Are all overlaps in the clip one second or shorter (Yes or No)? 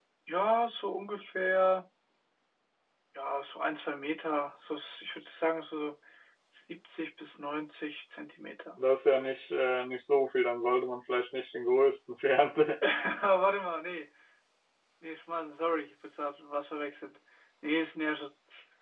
Yes